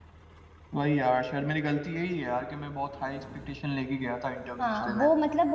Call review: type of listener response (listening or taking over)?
taking over